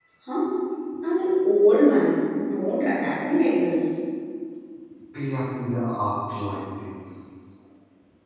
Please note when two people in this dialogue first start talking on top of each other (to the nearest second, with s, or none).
none